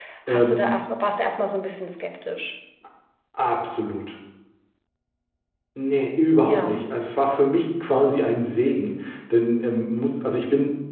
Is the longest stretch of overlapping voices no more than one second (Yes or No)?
Yes